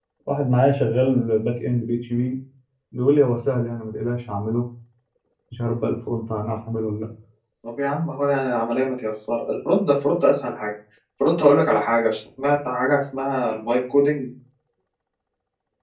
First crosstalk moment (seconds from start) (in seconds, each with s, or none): none